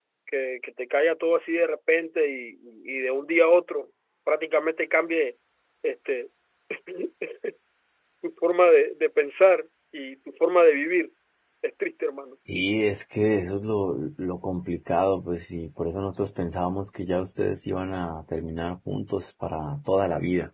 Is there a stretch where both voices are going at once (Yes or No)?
No